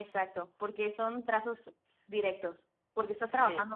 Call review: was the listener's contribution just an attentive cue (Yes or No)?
Yes